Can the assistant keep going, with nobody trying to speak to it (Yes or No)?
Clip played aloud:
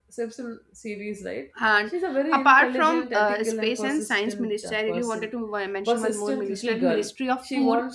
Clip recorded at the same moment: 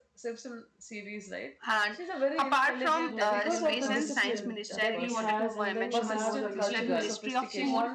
No